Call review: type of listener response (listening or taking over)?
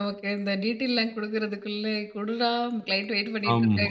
taking over